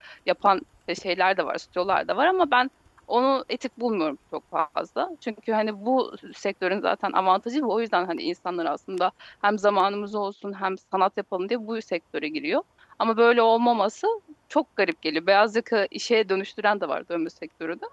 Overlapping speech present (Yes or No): No